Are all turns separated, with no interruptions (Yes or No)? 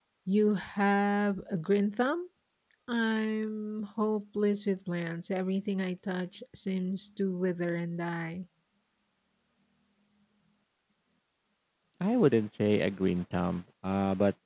Yes